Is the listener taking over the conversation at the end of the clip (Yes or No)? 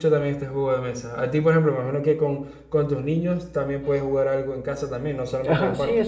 Yes